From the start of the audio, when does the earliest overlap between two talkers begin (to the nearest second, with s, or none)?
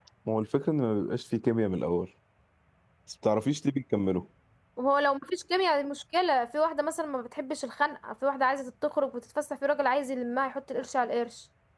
none